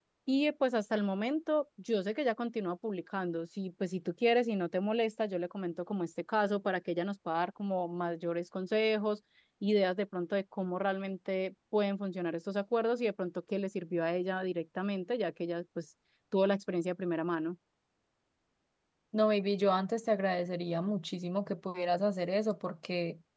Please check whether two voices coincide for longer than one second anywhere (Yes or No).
No